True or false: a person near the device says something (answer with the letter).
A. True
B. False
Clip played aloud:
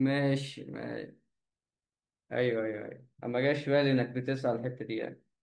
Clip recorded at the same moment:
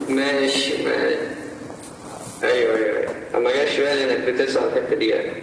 B